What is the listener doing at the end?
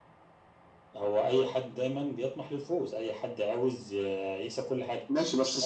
taking over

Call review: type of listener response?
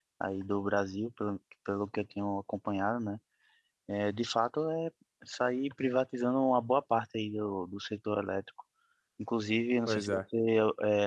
listening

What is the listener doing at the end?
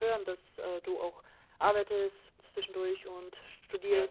listening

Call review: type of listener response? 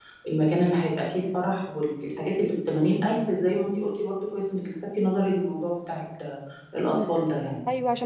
taking over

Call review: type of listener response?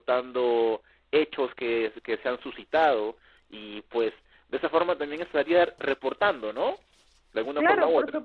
taking over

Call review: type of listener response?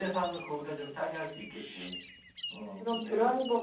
taking over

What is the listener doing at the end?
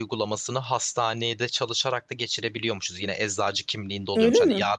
listening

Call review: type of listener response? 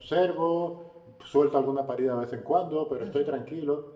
listening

